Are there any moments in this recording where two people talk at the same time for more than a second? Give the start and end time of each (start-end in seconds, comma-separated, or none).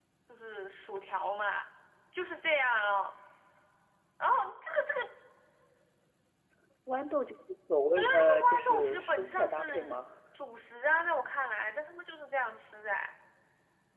8.0-10.0